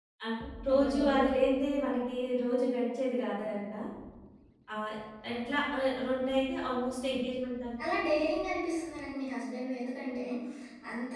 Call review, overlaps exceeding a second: none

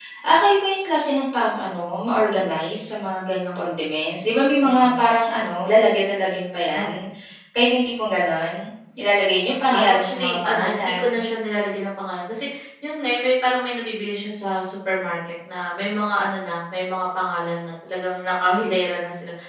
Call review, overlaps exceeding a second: present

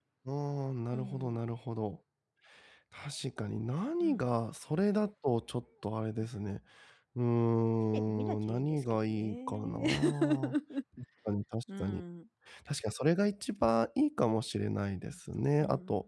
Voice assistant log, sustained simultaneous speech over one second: present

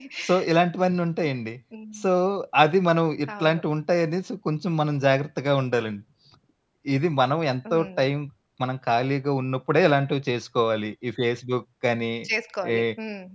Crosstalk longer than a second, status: none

